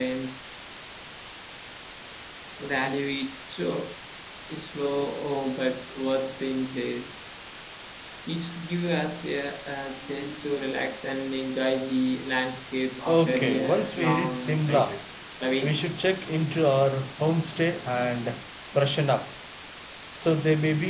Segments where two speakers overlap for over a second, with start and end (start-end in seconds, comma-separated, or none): 13.1-15.0